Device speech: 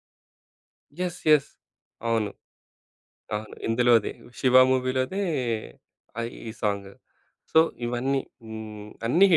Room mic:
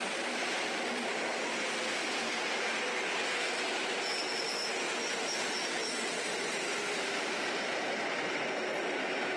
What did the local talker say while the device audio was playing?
none

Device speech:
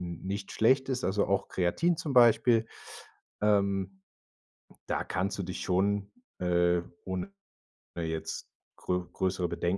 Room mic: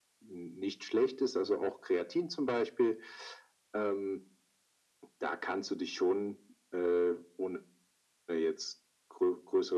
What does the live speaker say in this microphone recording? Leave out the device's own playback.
none

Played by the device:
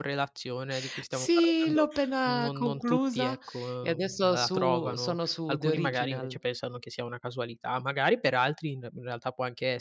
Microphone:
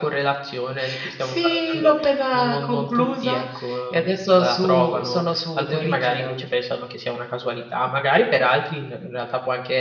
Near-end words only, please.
none

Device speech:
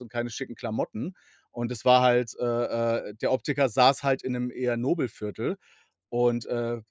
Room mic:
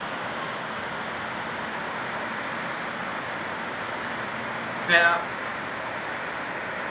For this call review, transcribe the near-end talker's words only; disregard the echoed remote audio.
Ja.

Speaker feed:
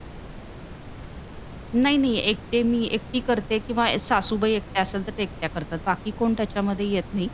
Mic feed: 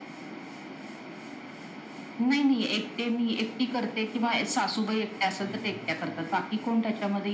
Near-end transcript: हं, हं, हं.

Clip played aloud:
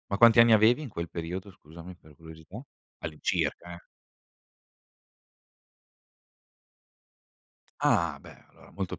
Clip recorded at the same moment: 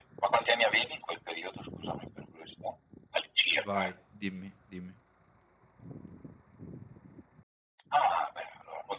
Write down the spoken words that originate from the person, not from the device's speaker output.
Vai, dimmi, dimmi.

